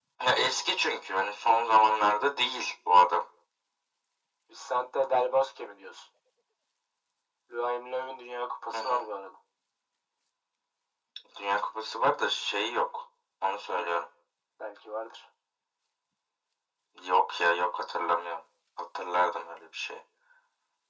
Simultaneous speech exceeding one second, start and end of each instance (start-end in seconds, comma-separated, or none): none